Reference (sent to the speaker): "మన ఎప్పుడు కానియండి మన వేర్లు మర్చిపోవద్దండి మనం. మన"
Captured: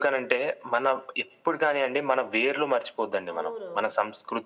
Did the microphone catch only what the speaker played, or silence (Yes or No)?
No